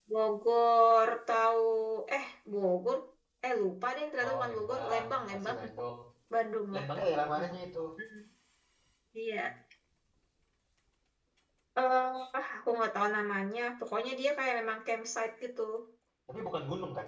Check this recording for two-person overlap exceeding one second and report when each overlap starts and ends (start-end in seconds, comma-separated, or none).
4.2-5.6